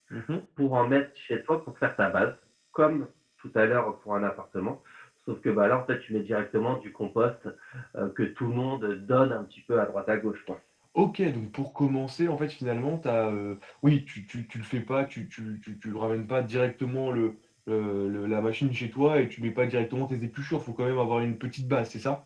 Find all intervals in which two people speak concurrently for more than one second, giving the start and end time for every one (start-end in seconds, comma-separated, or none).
none